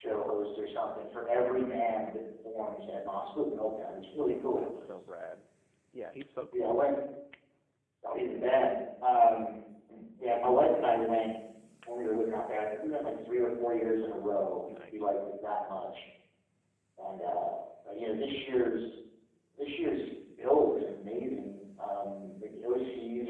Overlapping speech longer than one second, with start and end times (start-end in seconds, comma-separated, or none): none